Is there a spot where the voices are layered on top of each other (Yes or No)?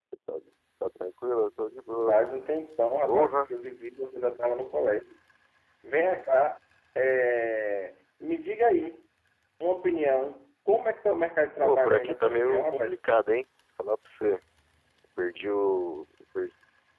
Yes